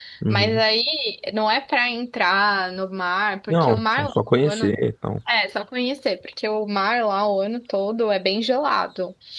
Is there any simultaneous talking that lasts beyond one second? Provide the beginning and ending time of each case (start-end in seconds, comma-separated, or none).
3.5-4.7